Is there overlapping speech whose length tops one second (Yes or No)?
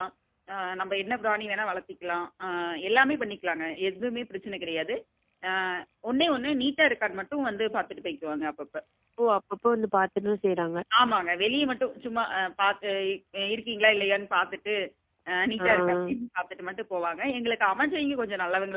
No